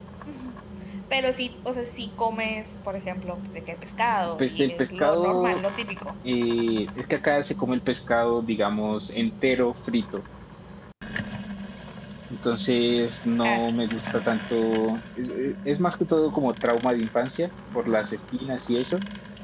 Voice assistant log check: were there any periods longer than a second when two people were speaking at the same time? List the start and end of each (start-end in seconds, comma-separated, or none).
4.4-5.6